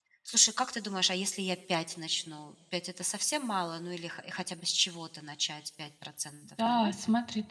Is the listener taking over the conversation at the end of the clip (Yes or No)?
Yes